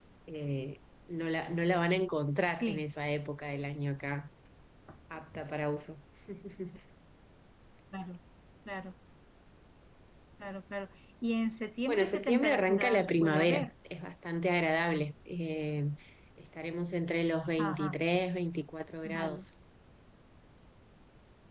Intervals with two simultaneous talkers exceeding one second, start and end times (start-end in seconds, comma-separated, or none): 11.9-13.7